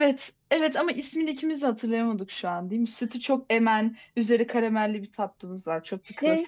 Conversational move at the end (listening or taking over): taking over